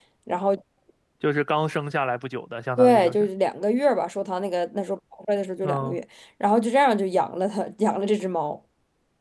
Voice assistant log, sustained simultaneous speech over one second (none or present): none